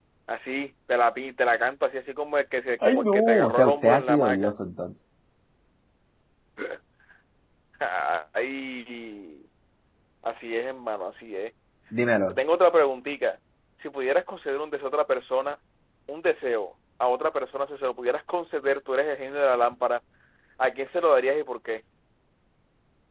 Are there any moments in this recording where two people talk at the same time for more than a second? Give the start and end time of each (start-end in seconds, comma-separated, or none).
2.8-4.5